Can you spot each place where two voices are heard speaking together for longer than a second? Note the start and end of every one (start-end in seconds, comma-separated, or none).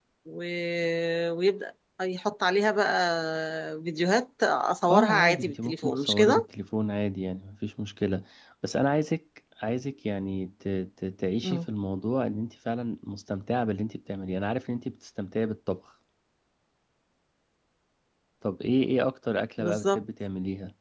4.9-6.4